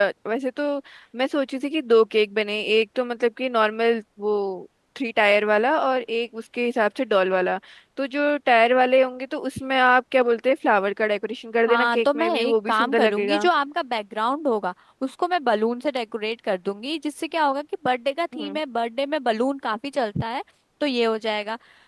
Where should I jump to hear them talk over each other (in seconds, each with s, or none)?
11.7 s